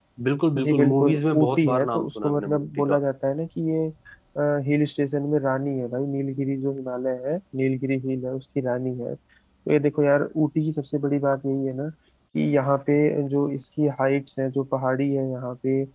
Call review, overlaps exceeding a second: present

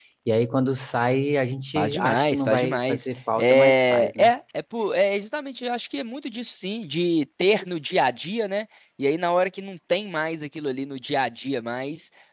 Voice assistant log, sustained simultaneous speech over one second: present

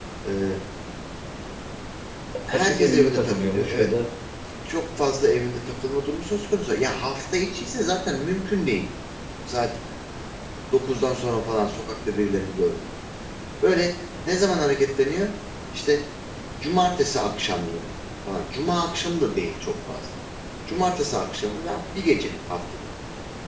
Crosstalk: present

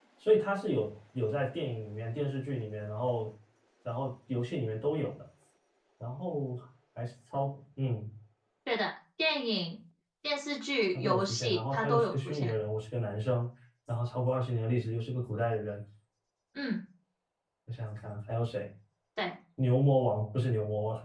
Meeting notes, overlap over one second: present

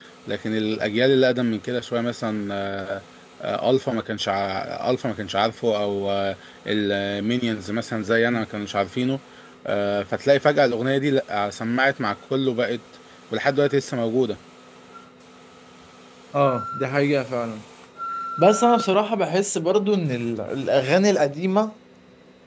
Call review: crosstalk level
none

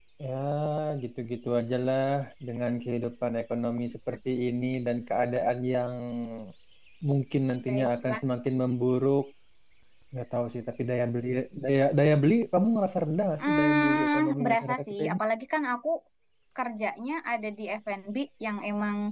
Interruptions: present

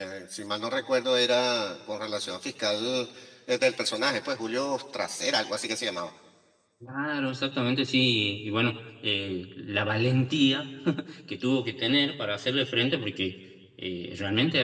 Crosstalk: none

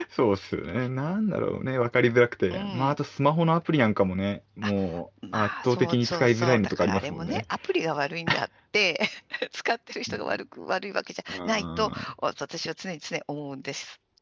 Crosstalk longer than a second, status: present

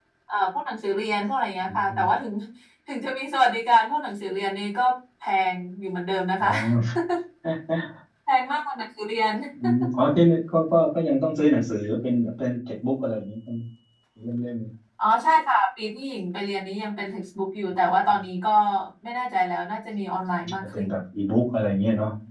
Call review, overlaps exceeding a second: none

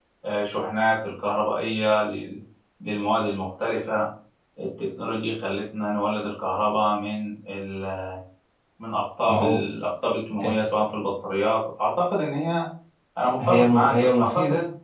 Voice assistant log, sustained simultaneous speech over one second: present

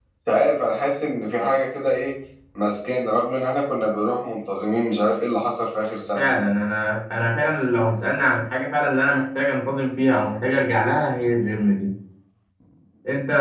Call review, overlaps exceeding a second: none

